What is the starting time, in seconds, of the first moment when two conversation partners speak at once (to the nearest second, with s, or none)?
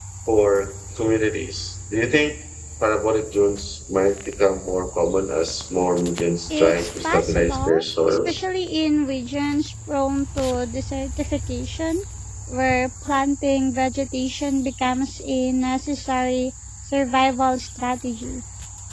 7 s